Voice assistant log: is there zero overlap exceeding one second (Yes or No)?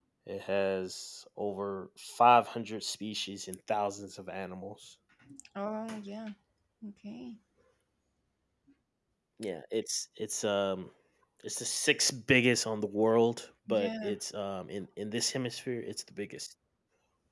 Yes